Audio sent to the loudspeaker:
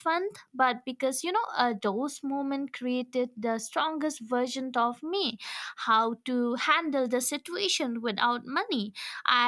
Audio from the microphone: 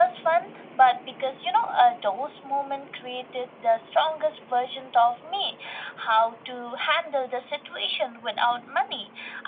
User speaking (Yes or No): No